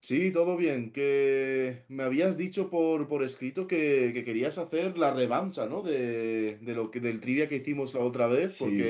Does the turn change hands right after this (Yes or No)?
Yes